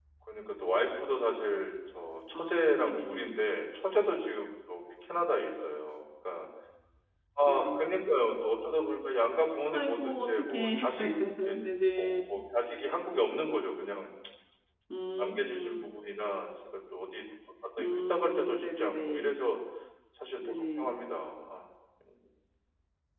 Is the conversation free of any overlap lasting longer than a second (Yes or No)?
No